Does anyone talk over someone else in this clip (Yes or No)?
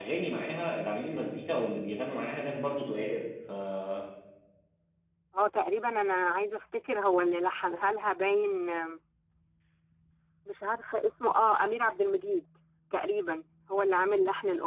No